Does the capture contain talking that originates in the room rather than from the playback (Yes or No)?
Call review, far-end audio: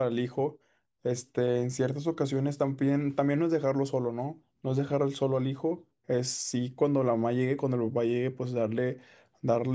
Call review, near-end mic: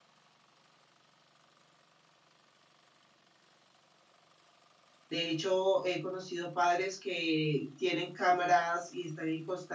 Yes